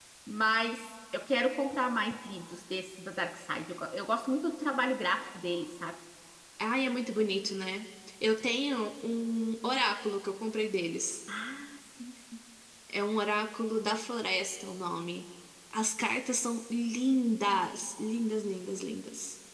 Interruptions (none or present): none